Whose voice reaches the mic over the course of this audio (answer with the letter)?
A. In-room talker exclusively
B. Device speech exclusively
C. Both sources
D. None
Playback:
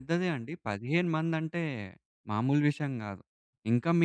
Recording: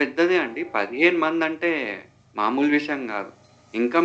B